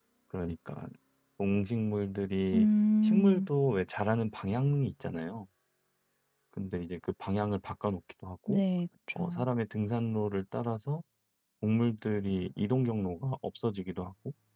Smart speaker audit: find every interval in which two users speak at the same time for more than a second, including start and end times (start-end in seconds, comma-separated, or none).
none